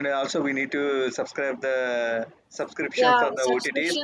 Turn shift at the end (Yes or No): Yes